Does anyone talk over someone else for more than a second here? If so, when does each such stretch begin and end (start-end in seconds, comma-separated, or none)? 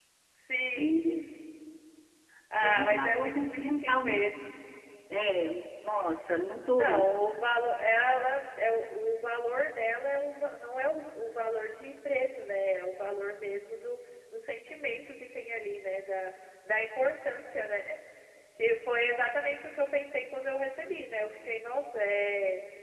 2.6-4.2